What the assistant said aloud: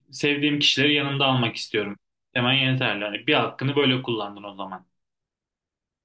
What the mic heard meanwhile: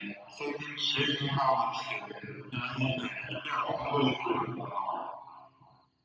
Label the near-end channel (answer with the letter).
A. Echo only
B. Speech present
A